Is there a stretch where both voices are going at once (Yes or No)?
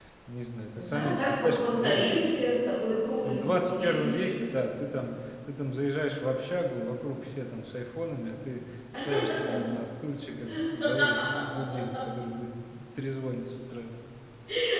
Yes